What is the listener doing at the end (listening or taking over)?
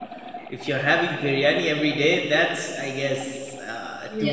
taking over